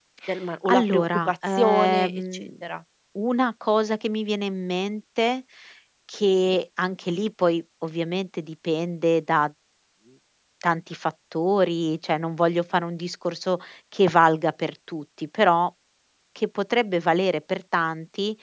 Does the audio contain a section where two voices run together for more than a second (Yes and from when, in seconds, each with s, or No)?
Yes, from 0.7 s